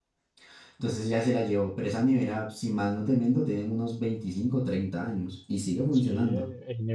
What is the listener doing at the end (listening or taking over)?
taking over